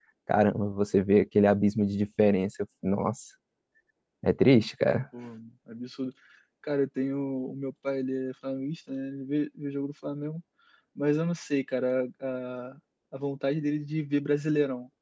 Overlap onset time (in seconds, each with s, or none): none